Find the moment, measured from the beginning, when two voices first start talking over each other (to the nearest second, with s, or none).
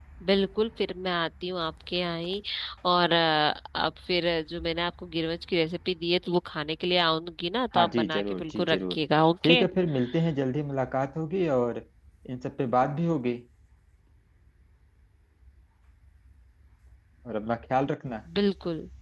8 s